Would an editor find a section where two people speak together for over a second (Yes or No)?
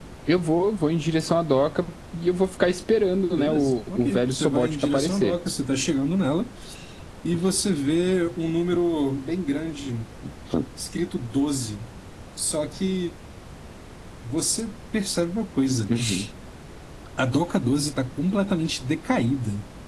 Yes